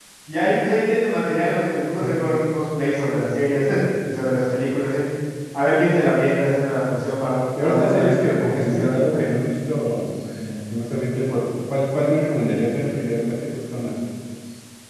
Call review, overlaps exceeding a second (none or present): present